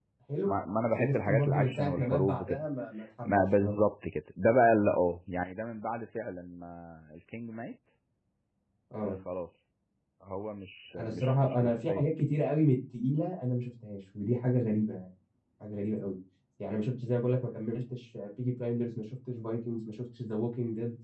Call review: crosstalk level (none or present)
present